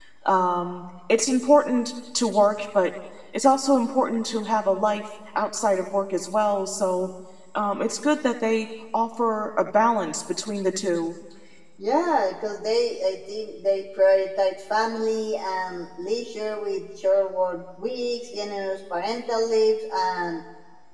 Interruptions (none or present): none